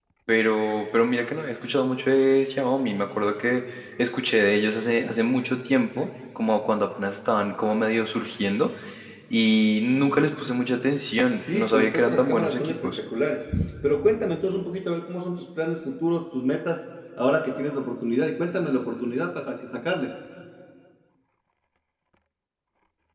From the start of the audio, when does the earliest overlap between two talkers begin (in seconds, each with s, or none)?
11.4 s